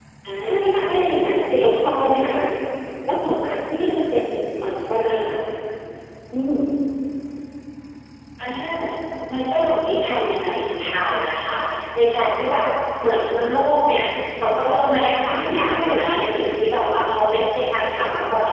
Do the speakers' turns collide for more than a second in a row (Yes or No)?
Yes